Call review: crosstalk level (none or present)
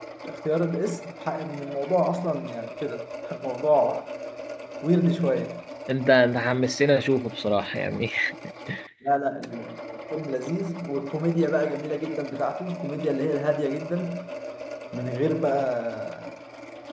none